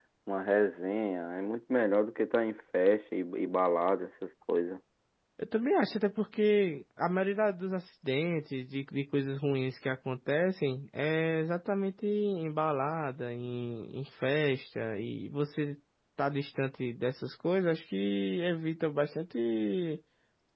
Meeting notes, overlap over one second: none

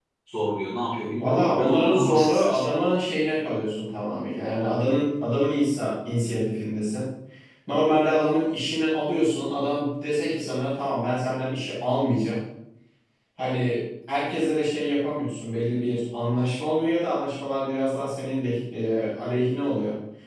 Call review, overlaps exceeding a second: present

